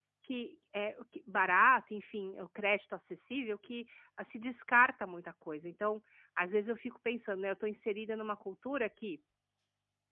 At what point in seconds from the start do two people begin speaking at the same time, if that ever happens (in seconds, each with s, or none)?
none